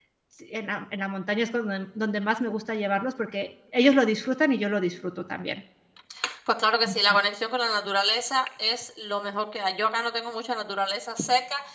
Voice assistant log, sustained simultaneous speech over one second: none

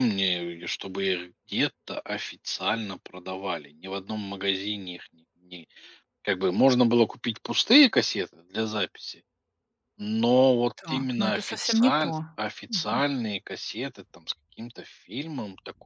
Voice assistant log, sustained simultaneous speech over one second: present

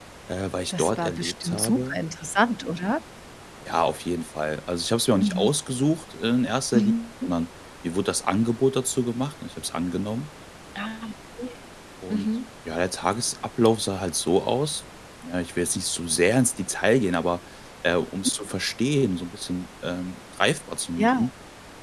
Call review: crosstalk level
present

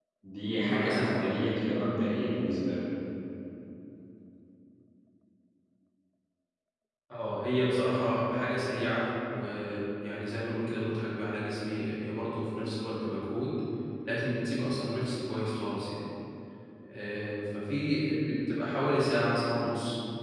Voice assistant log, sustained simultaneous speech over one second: present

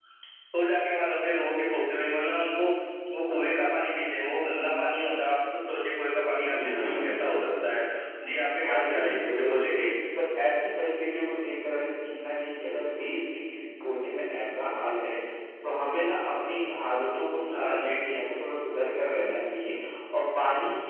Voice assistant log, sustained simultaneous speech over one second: present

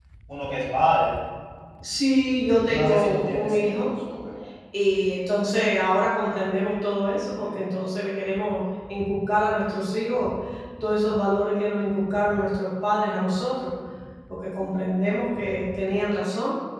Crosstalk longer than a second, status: present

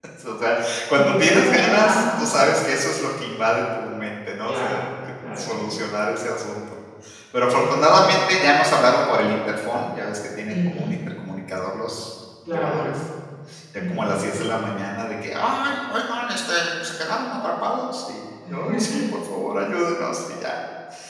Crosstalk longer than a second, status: present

